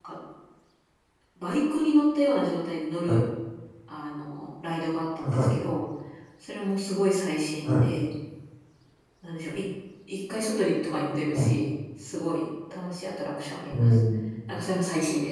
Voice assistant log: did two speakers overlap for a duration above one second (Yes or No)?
No